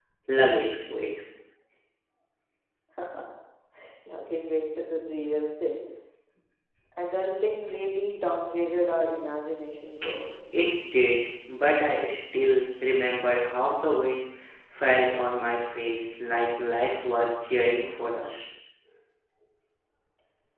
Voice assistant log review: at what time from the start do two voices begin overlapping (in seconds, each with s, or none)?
none